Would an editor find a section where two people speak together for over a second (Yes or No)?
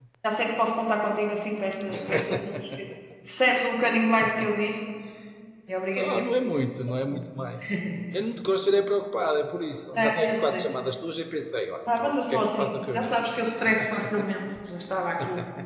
Yes